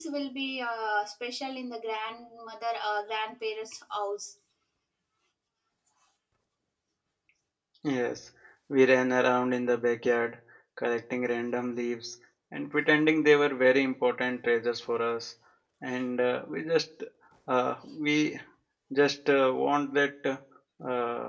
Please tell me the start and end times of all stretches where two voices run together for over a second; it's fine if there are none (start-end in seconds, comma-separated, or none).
none